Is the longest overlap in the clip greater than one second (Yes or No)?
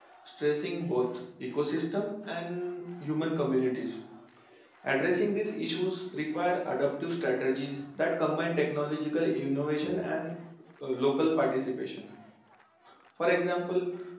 No